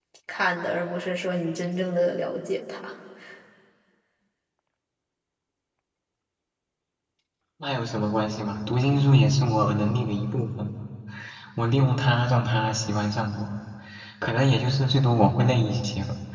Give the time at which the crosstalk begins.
none

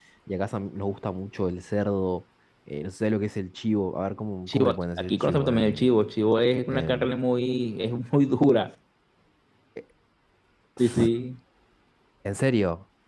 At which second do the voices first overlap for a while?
4.5 s

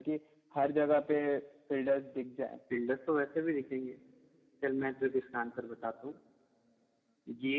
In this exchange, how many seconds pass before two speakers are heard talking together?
none

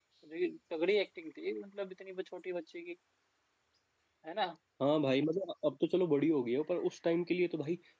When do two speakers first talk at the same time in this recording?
none

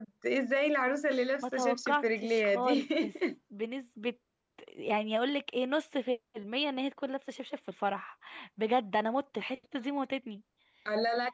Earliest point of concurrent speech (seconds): 1.4 s

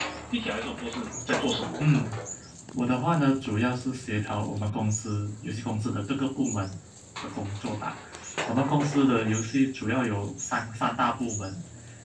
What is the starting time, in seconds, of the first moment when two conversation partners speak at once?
none

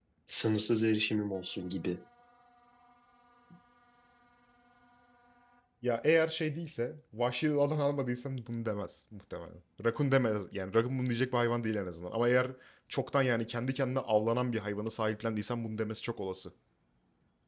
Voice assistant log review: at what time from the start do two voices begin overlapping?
none

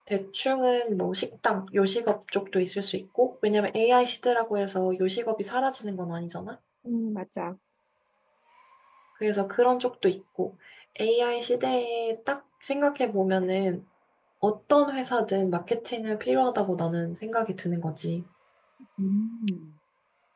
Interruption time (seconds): none

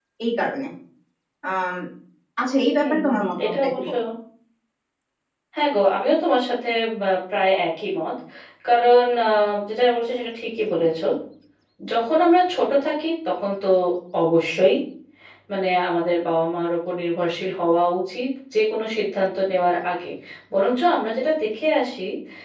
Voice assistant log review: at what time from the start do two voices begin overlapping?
2.7 s

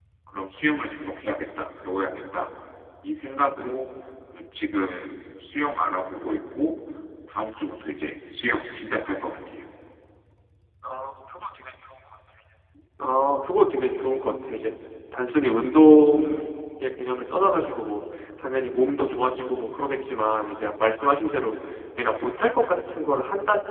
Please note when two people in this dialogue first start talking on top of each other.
none

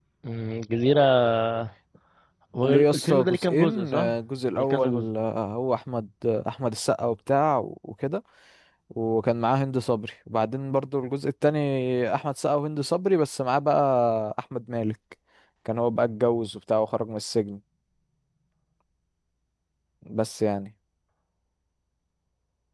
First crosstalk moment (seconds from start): 2.6 s

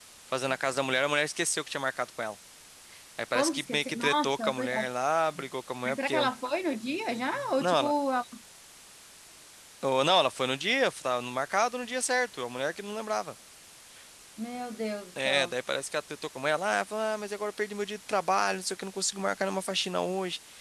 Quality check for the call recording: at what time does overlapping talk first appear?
3.3 s

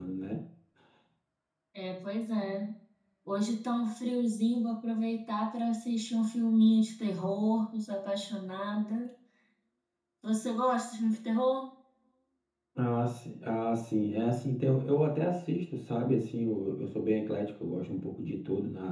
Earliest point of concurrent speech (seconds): none

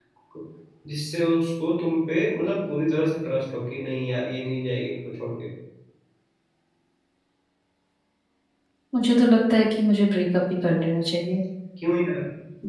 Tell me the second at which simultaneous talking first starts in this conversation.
none

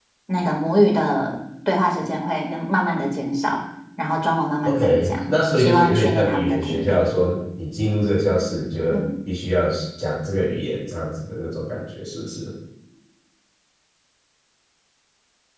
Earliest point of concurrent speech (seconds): 4.6 s

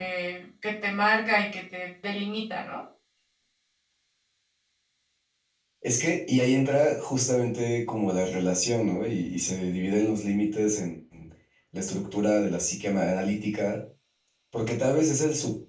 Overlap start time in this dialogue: none

